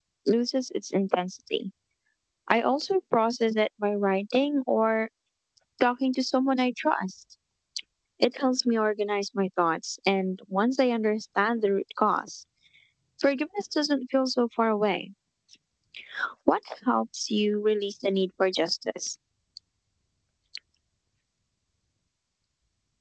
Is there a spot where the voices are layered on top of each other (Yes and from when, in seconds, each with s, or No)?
No